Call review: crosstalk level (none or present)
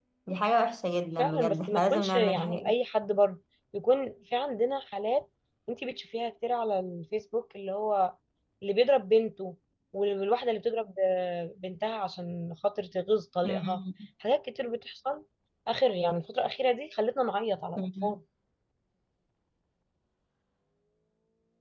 present